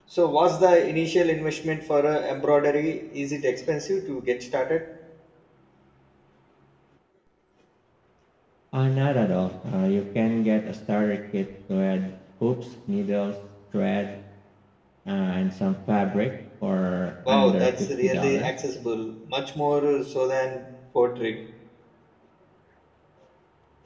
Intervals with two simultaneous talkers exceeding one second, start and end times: 17.3-18.5

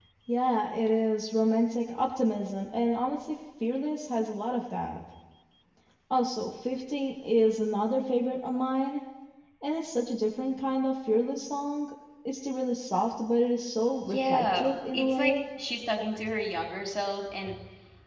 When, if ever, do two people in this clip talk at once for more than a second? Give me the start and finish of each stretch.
14.1-15.4

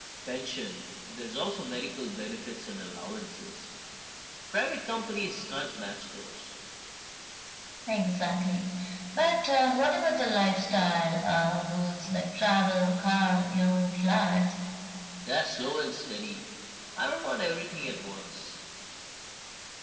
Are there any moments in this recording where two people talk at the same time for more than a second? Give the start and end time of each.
none

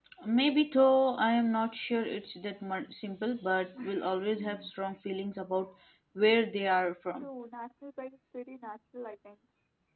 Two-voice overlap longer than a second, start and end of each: none

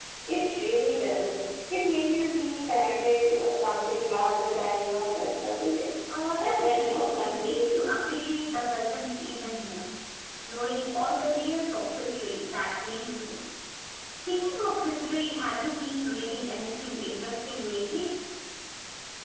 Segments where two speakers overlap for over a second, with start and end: 6.3-7.9

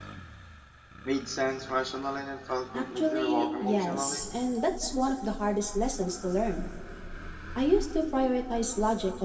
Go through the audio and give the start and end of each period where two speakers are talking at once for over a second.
2.7-4.2

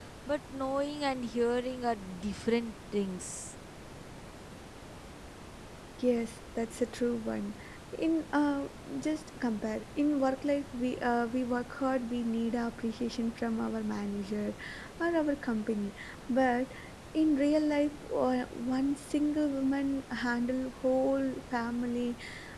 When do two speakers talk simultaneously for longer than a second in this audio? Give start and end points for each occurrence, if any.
none

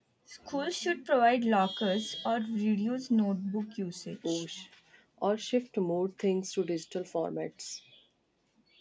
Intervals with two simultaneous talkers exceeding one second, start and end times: none

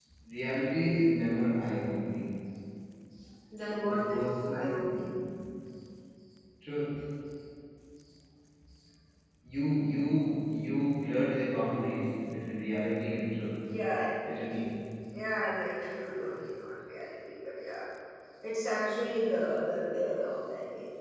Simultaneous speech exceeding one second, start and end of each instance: 3.8-5.2

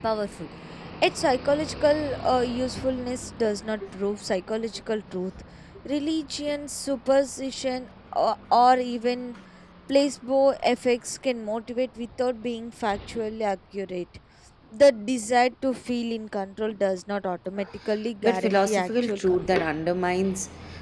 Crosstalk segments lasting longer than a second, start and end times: 18.2-19.6

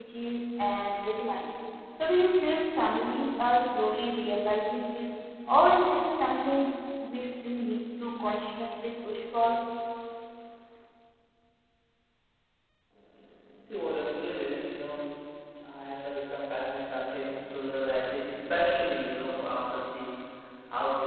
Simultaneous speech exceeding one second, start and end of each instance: none

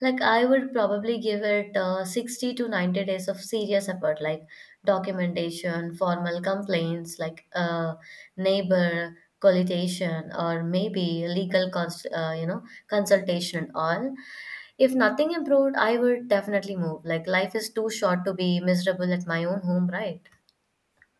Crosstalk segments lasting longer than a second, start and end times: none

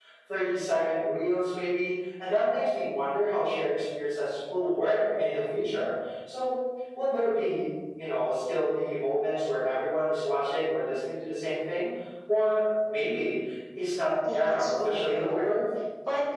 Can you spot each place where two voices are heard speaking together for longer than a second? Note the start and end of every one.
14.0-15.6

